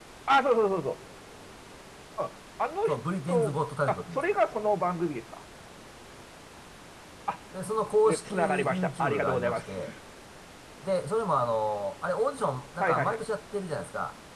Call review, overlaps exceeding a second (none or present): present